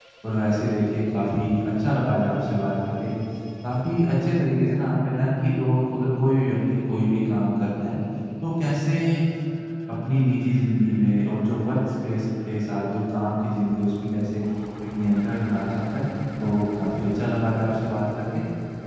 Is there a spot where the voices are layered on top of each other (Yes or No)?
No